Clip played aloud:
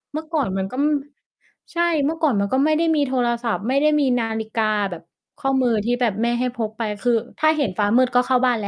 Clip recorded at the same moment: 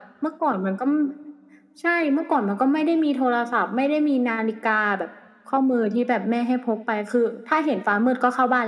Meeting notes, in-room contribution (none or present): none